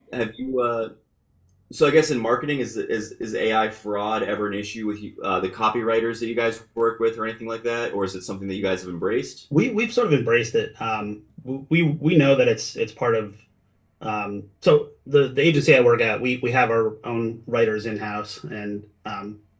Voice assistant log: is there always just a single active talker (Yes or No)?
Yes